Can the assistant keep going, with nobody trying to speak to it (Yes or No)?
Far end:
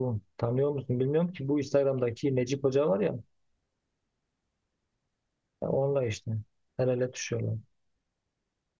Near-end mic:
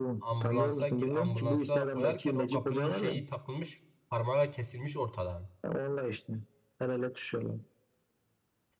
No